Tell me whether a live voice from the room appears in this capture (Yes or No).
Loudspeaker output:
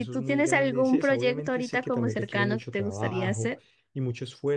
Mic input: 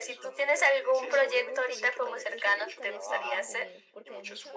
Yes